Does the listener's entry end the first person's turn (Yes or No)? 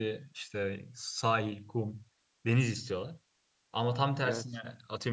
No